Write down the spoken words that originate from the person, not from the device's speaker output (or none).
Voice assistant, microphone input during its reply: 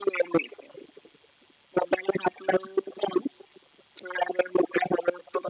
none